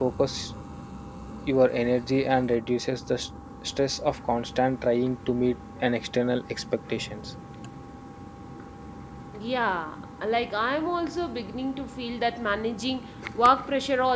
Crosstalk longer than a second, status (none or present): none